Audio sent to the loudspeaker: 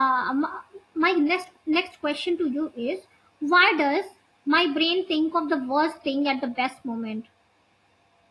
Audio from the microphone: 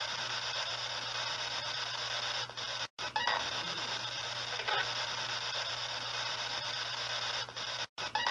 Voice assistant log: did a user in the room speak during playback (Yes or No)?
No